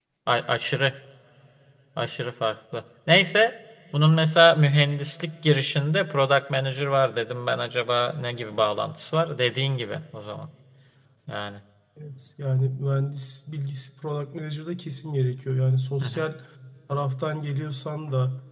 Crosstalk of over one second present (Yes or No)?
No